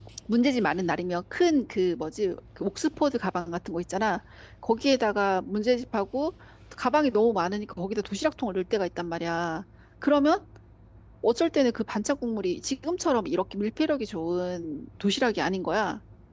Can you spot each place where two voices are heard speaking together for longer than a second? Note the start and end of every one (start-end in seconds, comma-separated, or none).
none